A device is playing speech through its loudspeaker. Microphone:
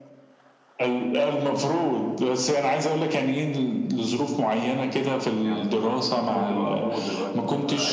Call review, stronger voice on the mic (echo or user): echo